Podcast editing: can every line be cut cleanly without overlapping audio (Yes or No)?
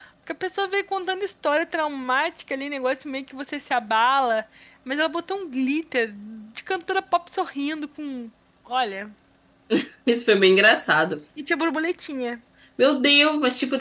Yes